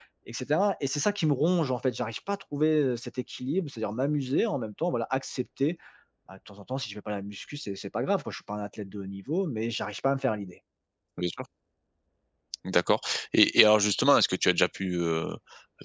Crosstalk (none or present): none